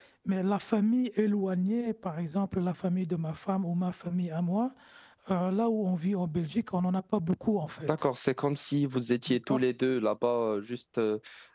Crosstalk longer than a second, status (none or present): none